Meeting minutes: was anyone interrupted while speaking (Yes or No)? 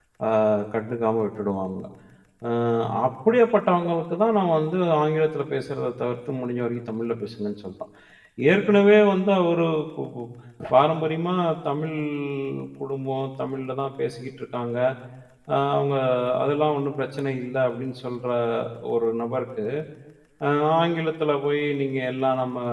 No